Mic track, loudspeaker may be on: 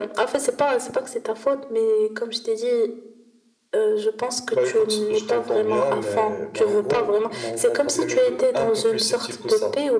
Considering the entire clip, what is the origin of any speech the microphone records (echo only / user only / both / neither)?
echo only